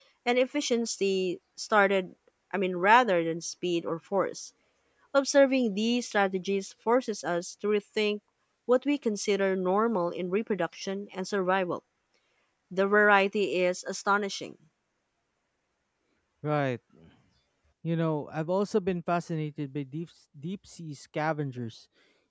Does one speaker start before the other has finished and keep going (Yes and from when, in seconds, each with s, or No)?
No